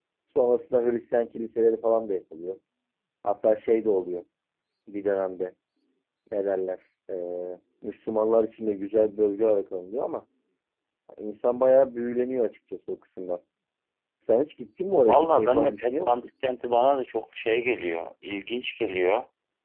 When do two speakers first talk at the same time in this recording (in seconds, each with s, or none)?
15.0 s